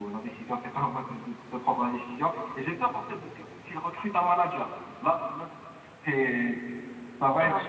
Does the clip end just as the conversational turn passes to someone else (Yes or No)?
No